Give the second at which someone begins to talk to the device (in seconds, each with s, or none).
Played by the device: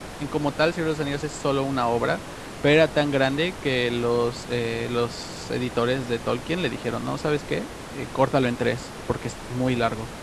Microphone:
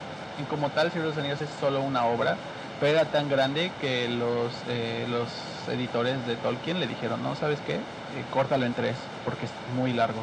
none